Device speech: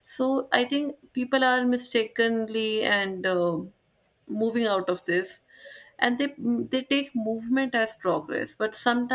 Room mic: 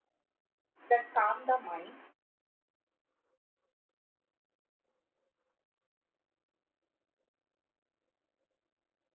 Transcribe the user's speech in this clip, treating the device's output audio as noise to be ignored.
that calm the mind,

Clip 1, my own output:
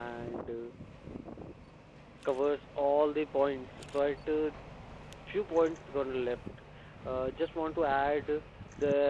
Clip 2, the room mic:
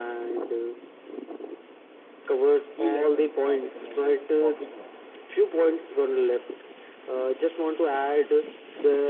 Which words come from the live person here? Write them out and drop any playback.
Ski lessons are recommended for beginners,

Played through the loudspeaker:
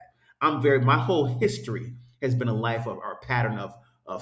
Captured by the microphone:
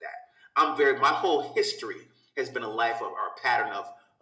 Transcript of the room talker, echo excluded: none

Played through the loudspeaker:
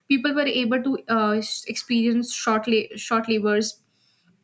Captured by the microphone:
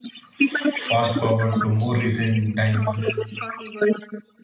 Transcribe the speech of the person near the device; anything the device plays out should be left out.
fast forward to more recent times,

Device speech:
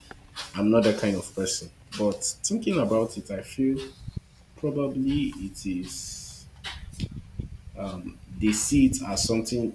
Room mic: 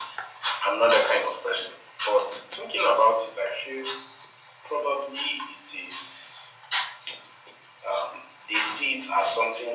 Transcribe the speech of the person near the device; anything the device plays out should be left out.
none

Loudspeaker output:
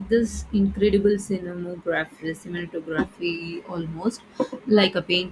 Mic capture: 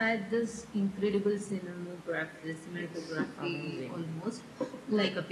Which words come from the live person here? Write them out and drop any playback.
It's amazing

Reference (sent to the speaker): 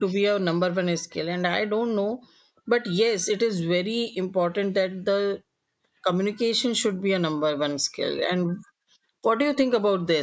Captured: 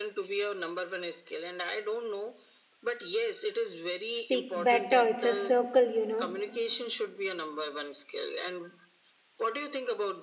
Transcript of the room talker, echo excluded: speak better it's a circle you know

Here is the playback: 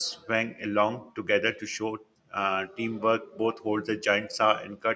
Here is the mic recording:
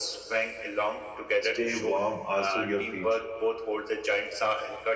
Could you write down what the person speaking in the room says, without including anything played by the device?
stay warm, also your feet."

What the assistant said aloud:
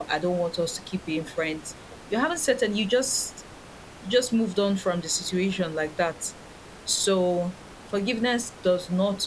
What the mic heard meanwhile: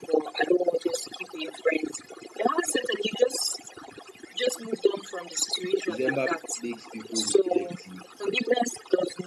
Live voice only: December makes people reflective,

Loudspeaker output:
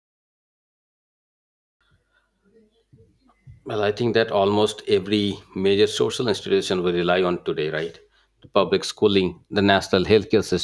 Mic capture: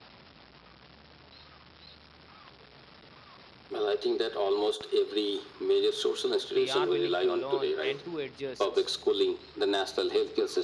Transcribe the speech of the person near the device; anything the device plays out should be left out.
they are willing to learn and to adjust

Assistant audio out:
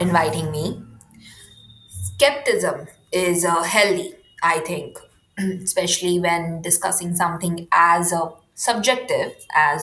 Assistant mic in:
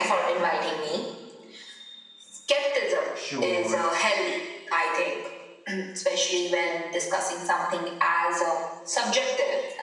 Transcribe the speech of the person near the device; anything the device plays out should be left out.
chores,

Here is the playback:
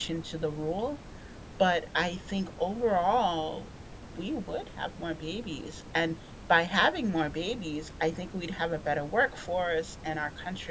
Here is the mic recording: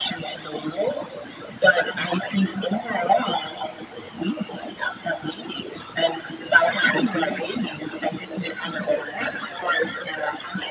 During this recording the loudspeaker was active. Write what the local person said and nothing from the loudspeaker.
as a company

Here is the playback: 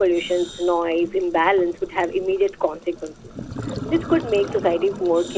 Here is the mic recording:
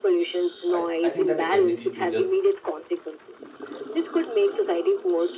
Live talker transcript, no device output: I, I think that the ability to just

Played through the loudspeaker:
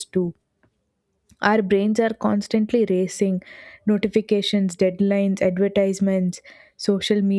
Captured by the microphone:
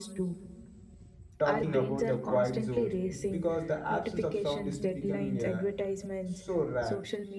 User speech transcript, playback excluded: talking about the quiet zones because the absence of sound is becoming uh, so rare

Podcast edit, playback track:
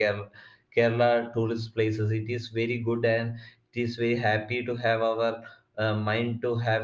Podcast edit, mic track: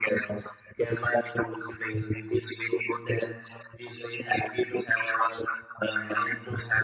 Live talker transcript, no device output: none

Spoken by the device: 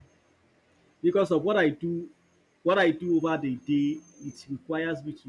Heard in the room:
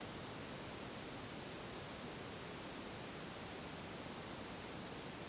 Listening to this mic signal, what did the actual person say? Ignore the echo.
none

